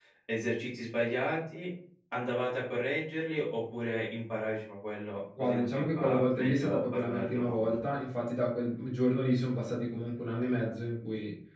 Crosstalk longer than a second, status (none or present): present